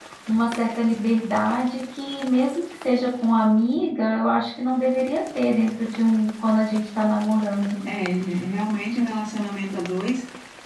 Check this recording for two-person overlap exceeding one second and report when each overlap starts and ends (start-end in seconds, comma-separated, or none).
none